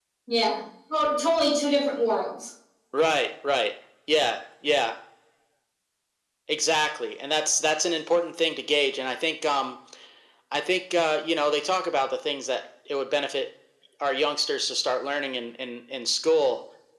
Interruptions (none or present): none